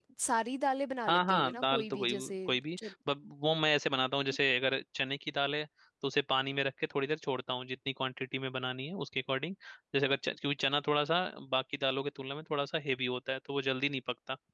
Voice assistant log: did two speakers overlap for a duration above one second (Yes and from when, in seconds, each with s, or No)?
Yes, from 1.1 s